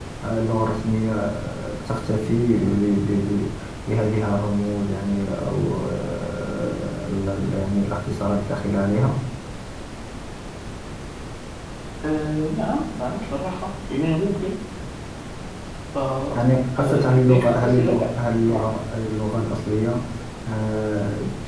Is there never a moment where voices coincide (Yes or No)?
No